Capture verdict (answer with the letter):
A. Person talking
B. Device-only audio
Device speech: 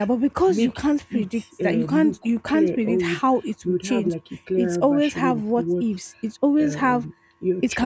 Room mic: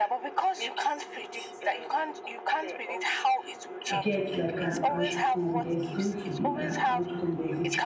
A